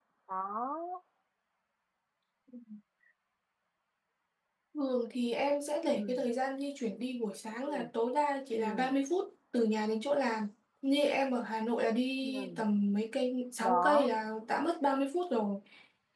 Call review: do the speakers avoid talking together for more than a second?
Yes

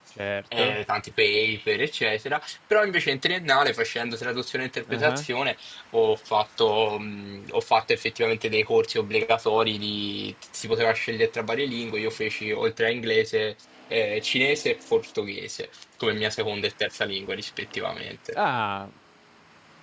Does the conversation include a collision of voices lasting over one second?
No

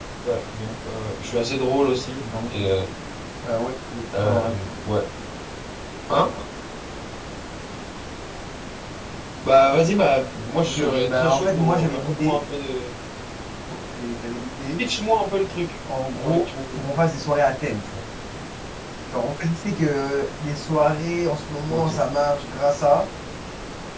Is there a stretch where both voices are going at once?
Yes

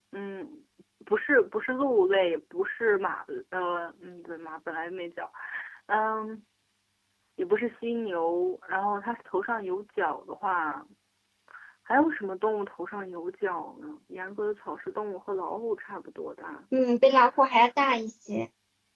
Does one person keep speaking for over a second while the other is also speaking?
No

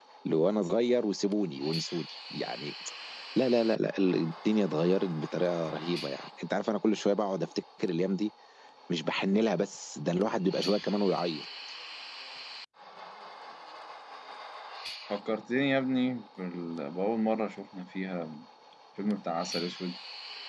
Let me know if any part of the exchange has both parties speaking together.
No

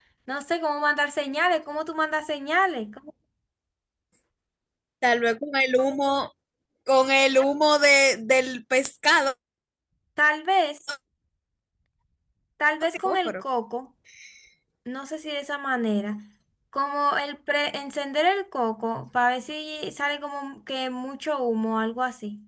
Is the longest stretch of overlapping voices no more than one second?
Yes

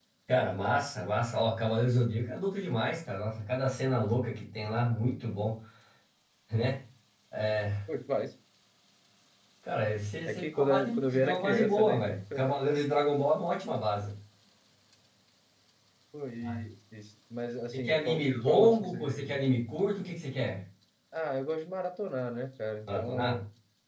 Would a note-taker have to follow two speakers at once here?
Yes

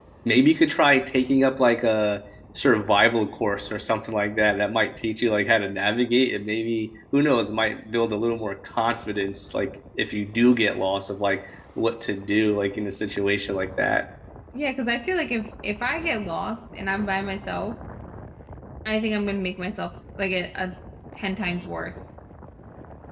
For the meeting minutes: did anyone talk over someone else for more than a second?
No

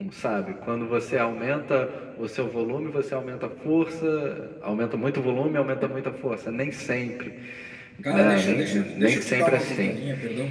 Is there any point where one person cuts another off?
Yes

